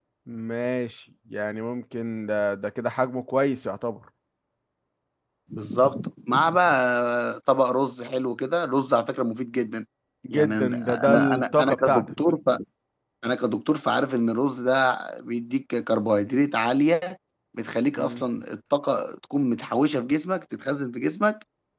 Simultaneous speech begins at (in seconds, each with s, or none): 10.3 s